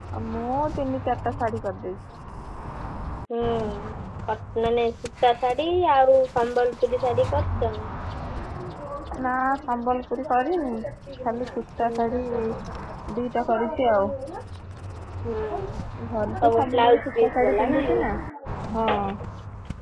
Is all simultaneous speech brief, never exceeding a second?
No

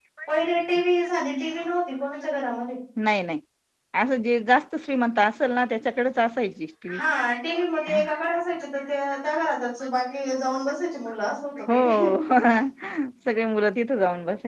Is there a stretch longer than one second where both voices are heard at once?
No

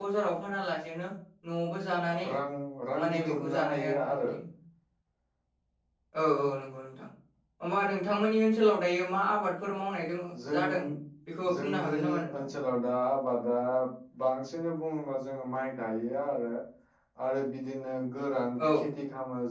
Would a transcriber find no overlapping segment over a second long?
No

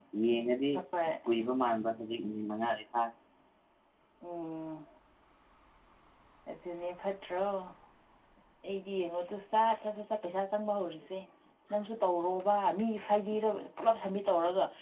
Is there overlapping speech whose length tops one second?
No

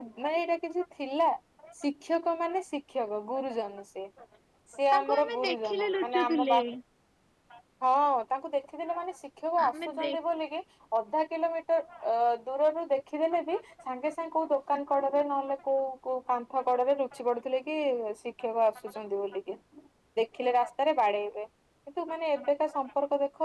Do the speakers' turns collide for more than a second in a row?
Yes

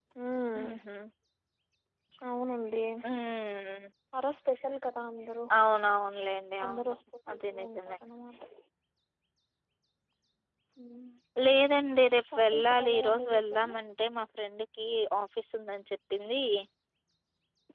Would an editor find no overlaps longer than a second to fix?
No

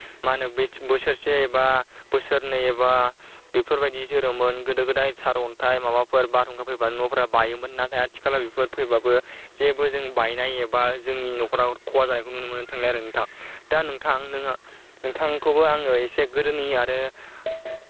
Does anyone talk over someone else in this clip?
No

